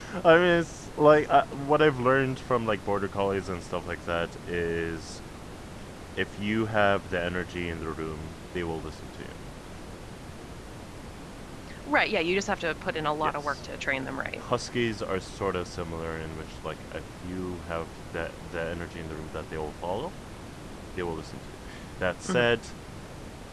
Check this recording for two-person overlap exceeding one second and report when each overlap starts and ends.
none

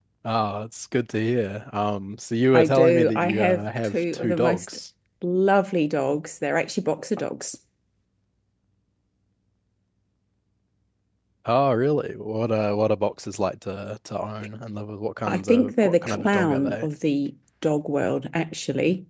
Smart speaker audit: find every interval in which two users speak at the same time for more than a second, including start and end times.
2.5-4.6, 15.3-16.9

